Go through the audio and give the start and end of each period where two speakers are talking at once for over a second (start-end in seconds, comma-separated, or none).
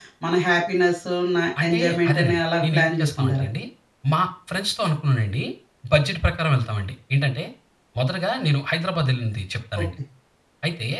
1.6-3.5